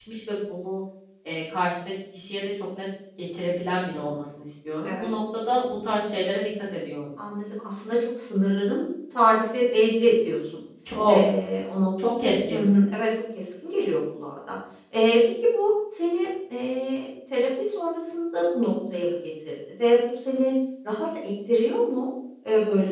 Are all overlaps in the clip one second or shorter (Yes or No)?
Yes